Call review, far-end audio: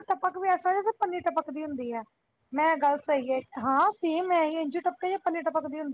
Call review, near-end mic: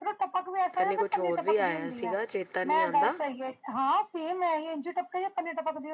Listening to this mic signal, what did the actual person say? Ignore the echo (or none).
ਕਹਿੰਦੇ ਕੁਛ ਹੋਰ ਵੀ ਆਇਆ ਸੀਗਾ, ਚੇਤਾ ਨਹੀਂ ਆਉਂਦਾ